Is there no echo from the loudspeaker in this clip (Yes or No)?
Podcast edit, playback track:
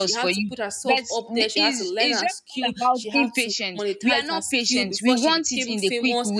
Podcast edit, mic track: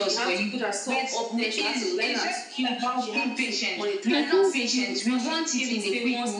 No